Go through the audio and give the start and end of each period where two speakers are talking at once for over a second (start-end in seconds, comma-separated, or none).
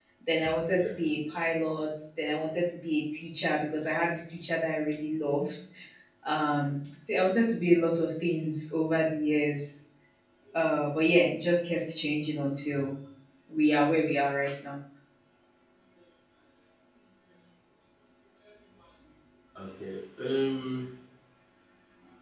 none